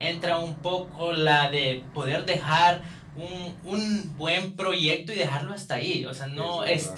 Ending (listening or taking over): listening